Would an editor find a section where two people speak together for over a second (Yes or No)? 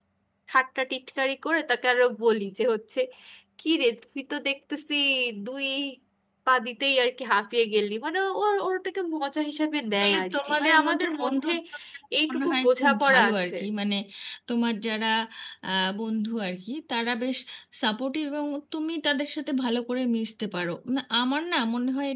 Yes